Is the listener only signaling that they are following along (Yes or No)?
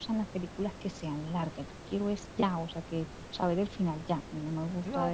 No